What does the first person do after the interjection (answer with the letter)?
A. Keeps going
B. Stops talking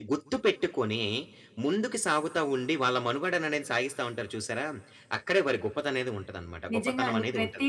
B